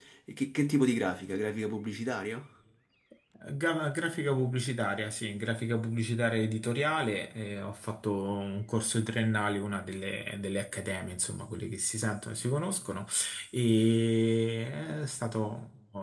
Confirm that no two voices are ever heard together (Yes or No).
Yes